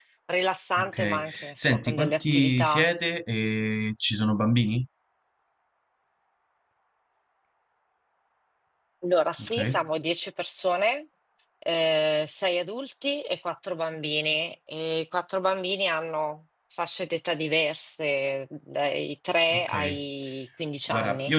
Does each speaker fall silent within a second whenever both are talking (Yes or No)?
No